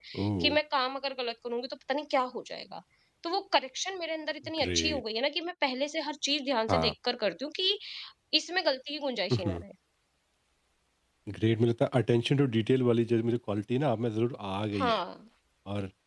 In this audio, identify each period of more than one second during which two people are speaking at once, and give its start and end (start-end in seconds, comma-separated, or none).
none